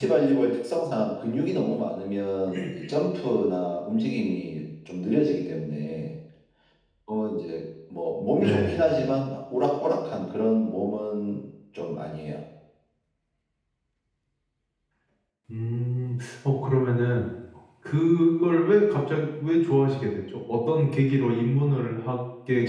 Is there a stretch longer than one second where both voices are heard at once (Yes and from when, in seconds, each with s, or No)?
No